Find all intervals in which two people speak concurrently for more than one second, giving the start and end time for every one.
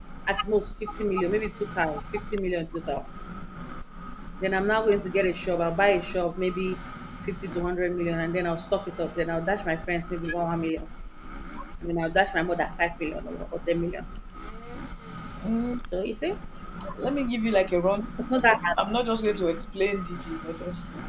none

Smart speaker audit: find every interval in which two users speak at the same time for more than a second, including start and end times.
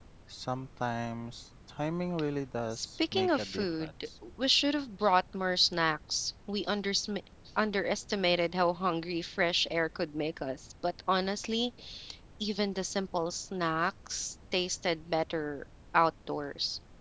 2.7-4.1

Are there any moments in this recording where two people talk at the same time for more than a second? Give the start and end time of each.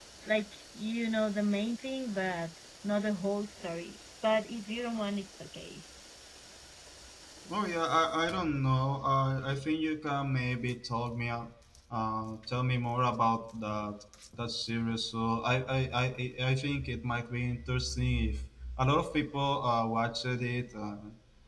none

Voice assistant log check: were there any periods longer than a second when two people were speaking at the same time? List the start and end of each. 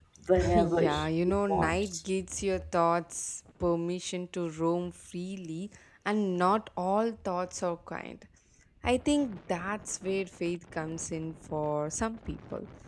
0.5-2.0

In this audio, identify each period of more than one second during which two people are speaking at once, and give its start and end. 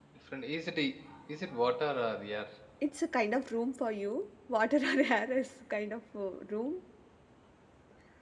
none

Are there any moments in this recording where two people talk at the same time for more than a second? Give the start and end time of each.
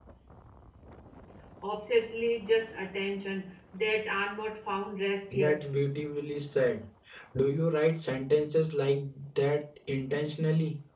none

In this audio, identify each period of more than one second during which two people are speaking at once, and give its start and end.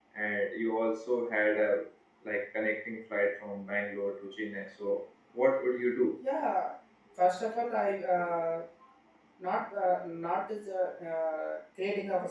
none

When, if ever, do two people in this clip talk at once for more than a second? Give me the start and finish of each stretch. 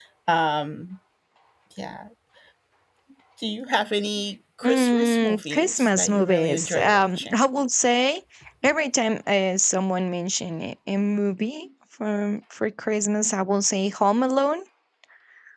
4.6-7.4

